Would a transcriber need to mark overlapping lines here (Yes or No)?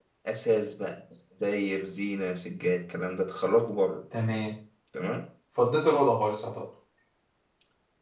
No